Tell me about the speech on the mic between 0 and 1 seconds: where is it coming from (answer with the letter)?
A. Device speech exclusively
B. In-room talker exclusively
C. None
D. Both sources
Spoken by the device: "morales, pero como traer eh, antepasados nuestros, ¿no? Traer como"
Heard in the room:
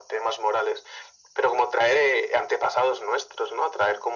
A